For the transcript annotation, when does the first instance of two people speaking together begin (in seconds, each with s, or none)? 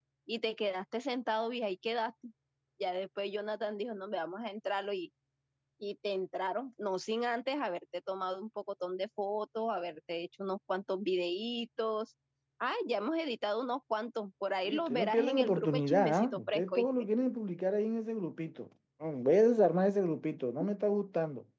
14.7 s